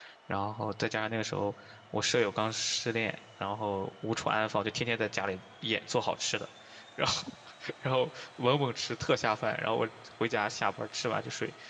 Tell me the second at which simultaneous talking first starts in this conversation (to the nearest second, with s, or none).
none